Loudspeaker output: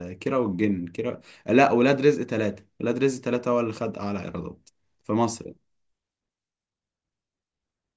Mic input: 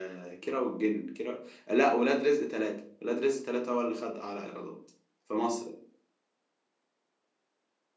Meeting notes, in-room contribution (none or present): none